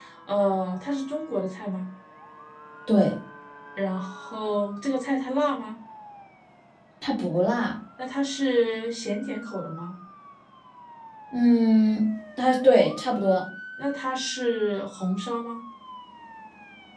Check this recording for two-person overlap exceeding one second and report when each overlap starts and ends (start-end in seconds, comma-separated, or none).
none